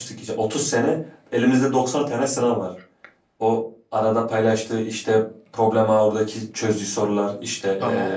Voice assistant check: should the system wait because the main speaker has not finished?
Yes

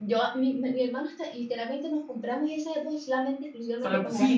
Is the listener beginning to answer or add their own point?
Yes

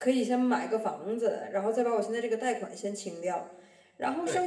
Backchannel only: Yes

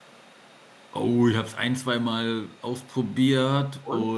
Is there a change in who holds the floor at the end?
No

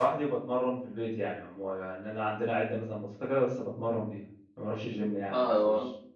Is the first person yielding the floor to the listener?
Yes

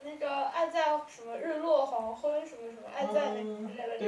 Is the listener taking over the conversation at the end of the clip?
Yes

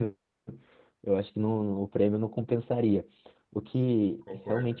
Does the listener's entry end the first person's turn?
No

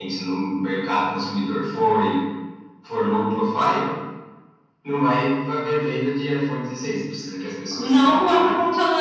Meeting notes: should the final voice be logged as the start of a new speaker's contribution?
Yes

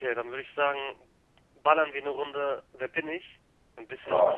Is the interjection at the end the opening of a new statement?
Yes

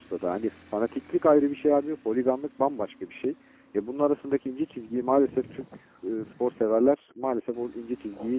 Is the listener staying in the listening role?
No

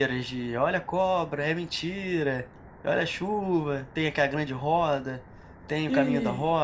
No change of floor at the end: No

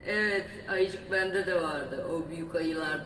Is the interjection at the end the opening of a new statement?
No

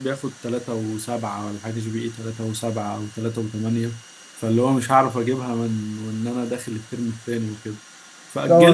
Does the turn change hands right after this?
Yes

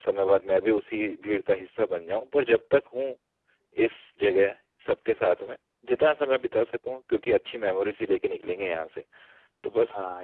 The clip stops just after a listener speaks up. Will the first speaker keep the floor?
No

